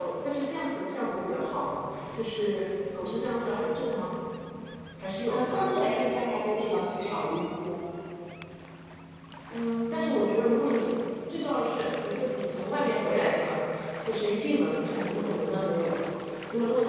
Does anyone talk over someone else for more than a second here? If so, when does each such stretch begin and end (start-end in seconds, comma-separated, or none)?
none